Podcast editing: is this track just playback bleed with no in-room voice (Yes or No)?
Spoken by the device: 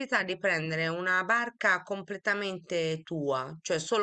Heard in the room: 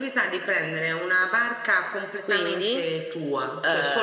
No